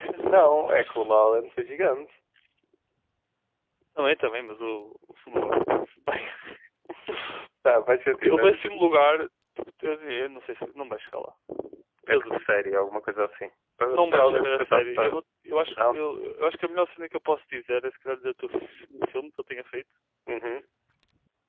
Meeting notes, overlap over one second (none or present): present